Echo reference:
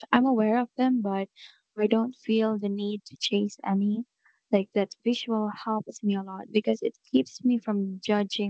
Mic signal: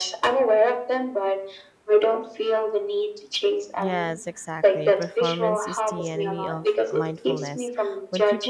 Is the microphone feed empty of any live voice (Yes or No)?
No